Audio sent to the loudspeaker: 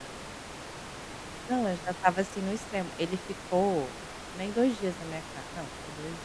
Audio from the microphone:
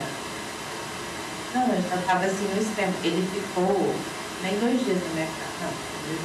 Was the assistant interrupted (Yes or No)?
No